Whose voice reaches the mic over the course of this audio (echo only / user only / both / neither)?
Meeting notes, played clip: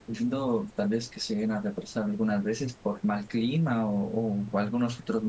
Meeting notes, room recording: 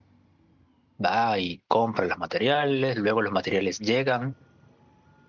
user only